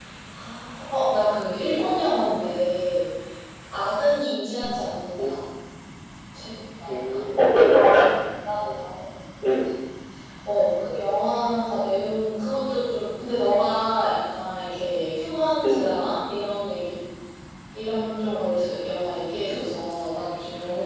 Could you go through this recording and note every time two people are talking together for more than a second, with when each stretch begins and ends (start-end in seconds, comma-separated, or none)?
none